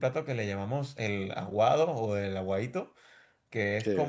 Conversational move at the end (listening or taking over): listening